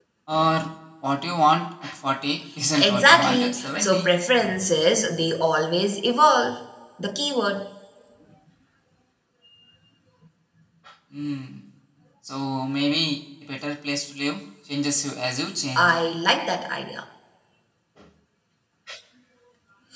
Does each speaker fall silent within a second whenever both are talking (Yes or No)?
No